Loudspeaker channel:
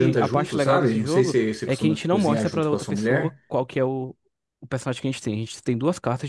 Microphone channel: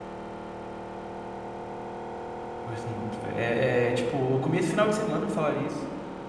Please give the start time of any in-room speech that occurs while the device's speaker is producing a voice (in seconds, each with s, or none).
2.7 s